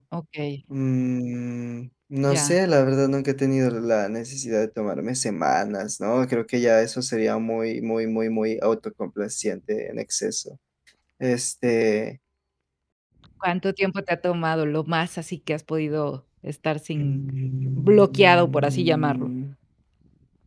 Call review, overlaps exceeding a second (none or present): present